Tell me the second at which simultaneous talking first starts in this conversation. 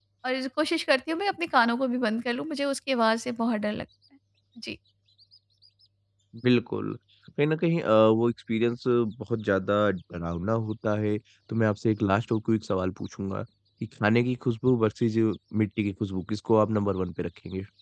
none

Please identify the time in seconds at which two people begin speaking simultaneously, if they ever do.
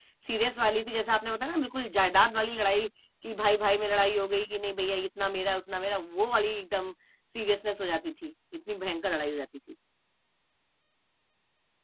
none

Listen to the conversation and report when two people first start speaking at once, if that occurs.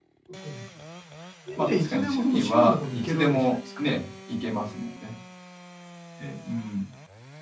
2 s

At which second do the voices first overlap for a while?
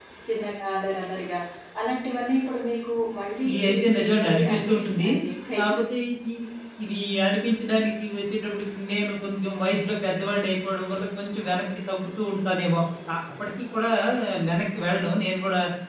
3 s

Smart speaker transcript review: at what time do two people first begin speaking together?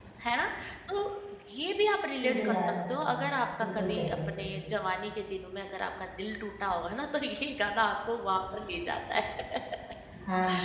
2 s

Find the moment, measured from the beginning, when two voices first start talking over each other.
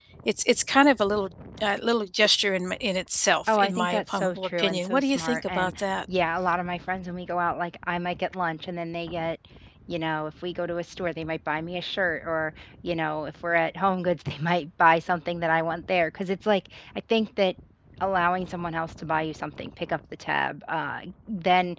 3 s

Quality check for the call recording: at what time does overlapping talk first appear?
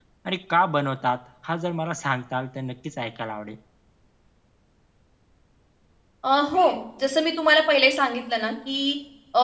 none

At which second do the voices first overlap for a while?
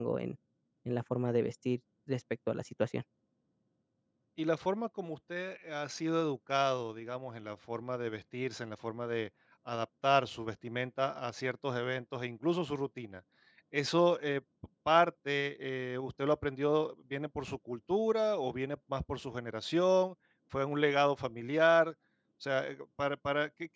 none

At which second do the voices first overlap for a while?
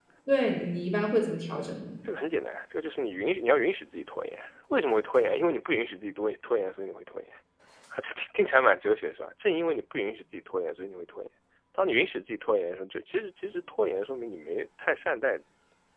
none

